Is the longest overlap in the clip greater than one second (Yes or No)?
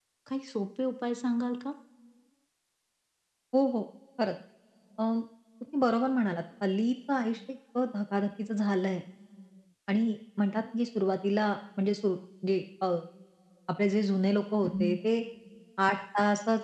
No